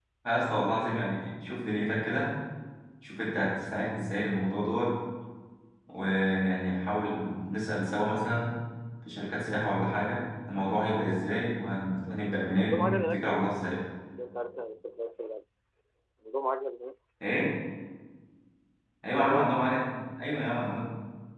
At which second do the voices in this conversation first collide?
12 s

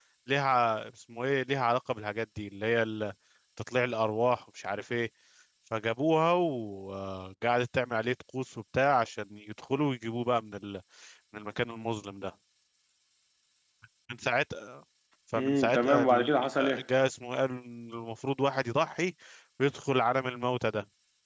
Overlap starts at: 15 s

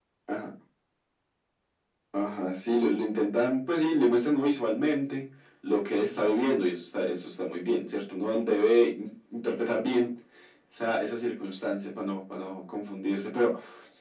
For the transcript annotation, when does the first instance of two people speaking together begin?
none

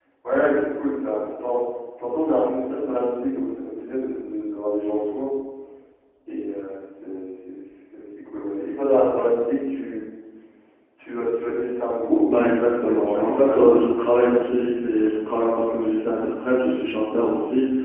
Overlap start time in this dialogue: 12 s

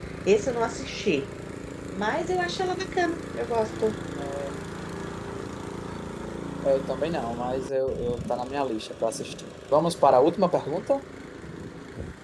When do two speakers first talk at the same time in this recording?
none

